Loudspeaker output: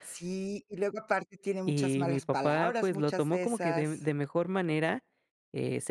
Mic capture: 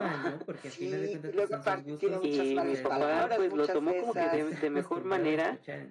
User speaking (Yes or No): Yes